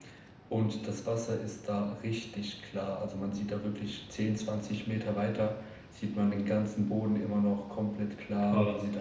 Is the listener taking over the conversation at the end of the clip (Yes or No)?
No